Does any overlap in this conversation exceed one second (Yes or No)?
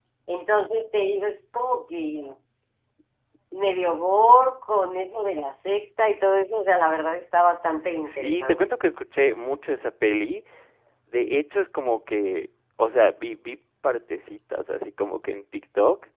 No